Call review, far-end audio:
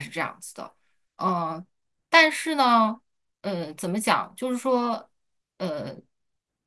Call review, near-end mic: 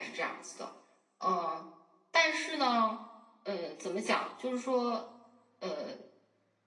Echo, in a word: present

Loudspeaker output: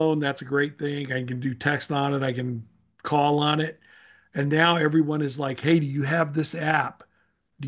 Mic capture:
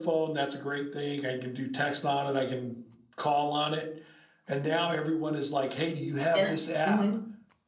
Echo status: present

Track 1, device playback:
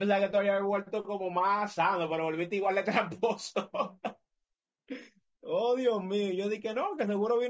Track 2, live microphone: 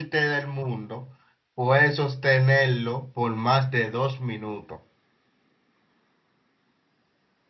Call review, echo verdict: none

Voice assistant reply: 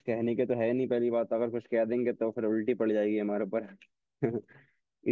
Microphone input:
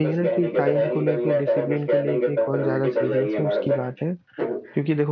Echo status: present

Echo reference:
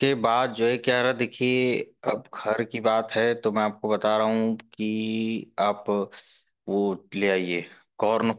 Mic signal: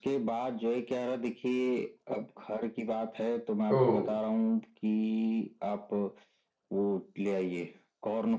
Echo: present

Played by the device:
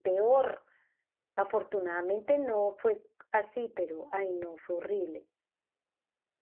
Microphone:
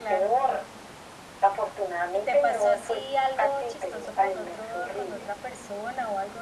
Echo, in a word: present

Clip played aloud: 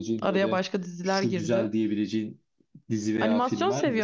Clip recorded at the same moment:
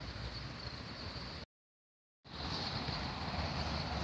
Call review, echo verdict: none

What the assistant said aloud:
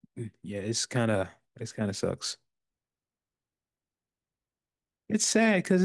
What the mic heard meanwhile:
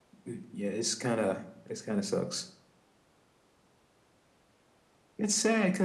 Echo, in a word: present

